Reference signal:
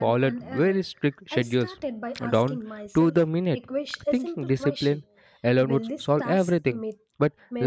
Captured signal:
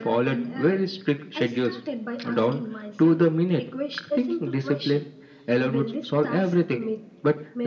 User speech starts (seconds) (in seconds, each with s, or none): none